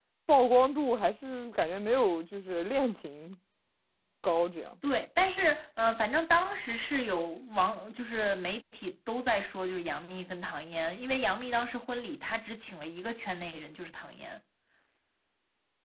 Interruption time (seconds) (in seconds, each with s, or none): none